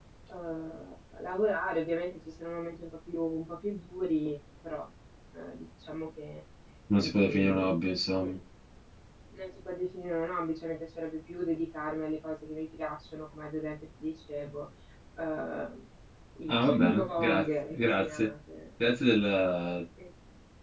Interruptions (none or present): present